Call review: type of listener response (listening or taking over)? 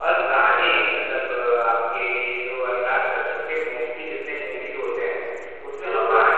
listening